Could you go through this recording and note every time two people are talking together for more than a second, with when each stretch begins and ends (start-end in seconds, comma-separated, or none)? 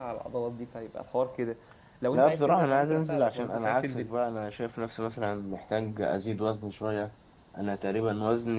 2.1-4.1